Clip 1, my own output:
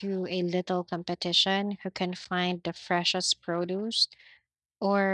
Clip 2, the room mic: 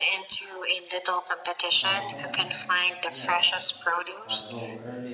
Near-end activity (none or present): present